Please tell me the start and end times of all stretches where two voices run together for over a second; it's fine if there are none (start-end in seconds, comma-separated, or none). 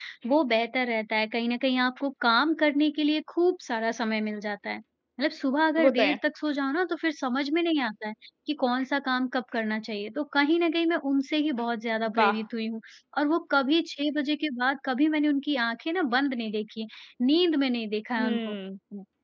none